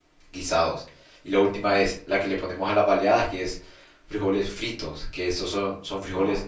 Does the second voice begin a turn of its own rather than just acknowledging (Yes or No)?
No